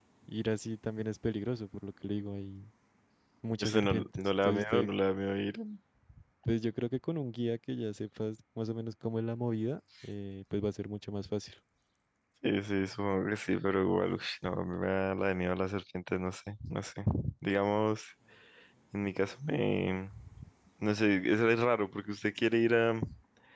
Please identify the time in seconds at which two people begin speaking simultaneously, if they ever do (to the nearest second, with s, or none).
4 s